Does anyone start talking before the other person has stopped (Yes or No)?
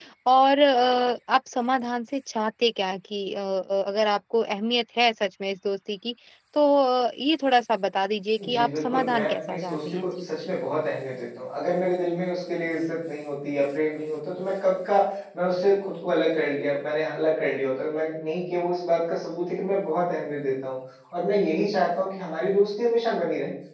Yes